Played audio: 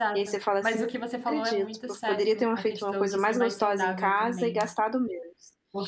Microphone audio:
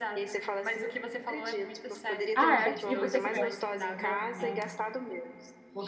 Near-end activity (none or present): present